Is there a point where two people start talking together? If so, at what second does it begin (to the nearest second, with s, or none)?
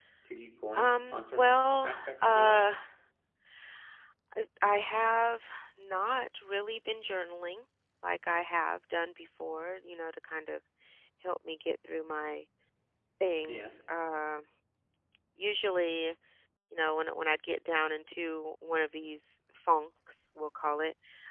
1 s